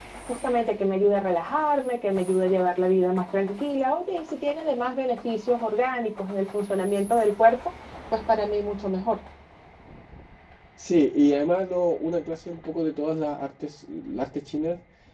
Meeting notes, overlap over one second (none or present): none